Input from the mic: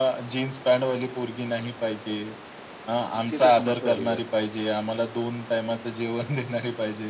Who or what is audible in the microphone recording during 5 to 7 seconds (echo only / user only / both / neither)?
echo only